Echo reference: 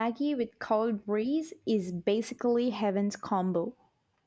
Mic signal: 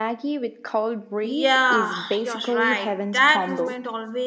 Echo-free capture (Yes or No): No